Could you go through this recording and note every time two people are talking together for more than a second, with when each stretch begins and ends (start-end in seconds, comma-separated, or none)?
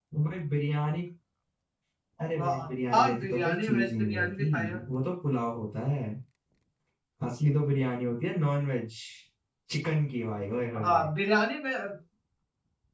2.4-4.8